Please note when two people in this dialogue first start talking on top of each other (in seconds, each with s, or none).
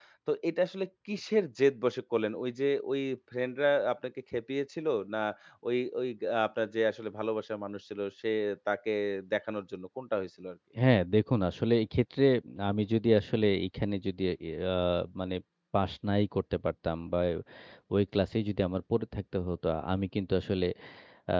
none